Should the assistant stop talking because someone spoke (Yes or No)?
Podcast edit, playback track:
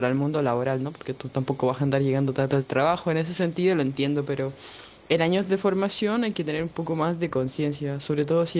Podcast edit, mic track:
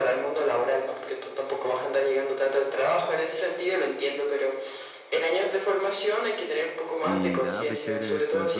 Yes